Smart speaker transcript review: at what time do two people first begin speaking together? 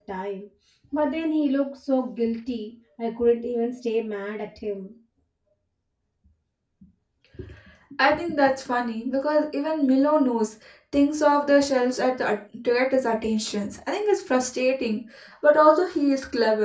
none

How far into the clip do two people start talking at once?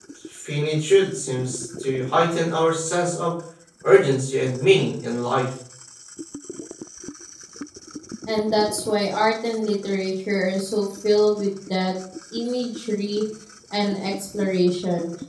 none

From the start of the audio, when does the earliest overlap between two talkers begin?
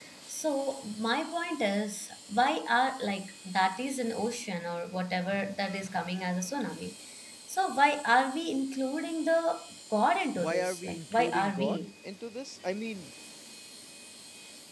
10.4 s

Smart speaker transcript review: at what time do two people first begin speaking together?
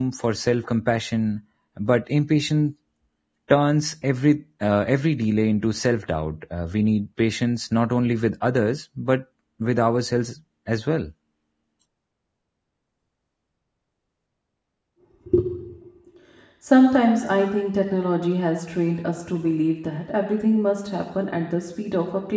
none

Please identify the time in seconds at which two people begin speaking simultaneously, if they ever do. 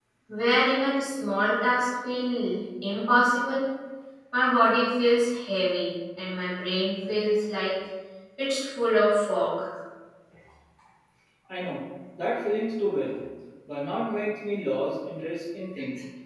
none

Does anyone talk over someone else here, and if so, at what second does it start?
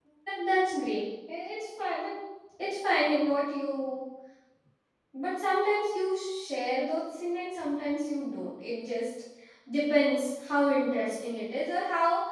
none

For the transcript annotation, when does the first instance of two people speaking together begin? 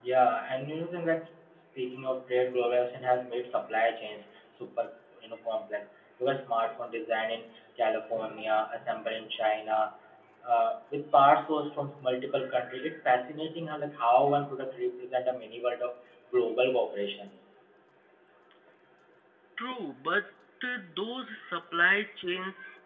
none

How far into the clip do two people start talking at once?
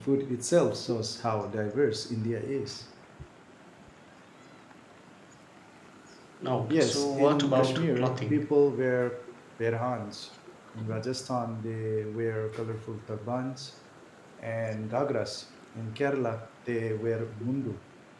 6.7 s

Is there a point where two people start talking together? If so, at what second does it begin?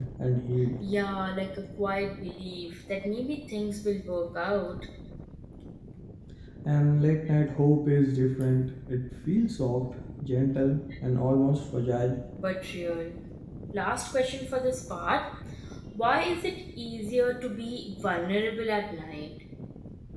none

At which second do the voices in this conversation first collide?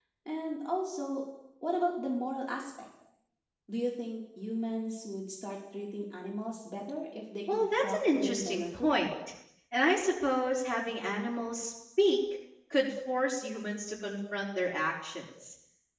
7.5 s

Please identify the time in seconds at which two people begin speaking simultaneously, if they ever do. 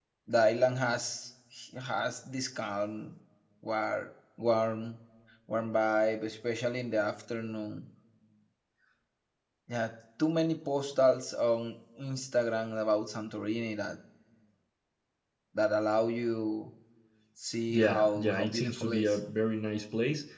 17.7 s

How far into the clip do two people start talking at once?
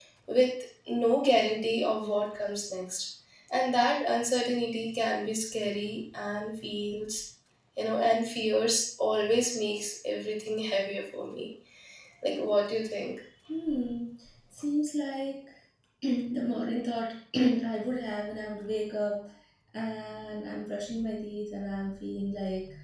none

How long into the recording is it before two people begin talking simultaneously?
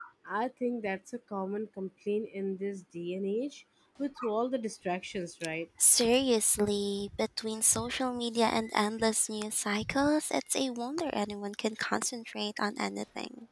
none

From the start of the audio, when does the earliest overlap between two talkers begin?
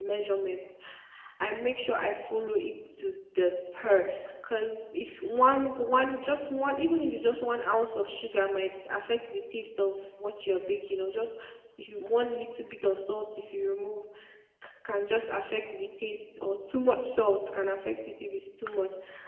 none

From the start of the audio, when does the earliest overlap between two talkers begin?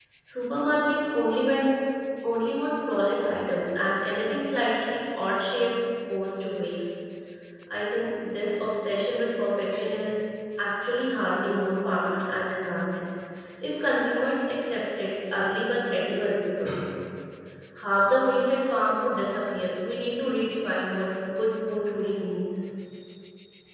none

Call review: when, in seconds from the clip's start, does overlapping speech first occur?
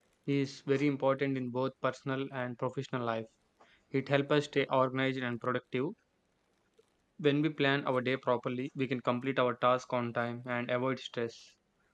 none

